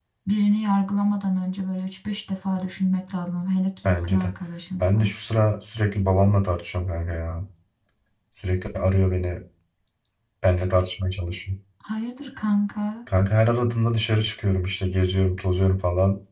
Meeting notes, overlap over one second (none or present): none